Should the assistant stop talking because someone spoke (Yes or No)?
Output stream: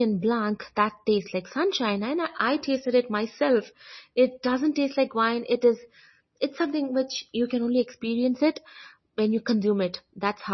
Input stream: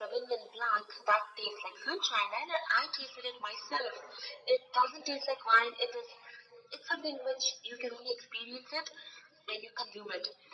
No